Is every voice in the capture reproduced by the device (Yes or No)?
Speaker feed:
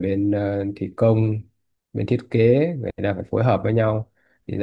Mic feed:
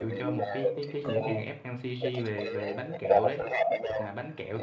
No